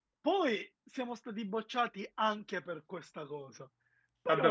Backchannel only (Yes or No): No